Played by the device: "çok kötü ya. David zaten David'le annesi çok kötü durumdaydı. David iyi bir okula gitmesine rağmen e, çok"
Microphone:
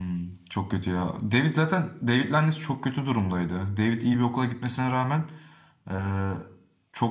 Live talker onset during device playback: none

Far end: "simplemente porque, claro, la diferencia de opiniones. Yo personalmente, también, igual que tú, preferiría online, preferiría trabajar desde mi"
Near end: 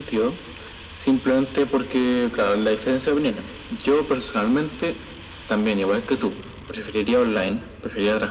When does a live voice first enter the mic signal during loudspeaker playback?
none

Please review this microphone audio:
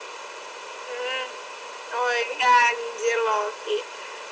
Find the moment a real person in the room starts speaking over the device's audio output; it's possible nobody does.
none

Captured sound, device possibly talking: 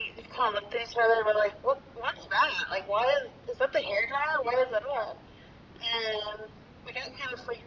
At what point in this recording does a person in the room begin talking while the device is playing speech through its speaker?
none

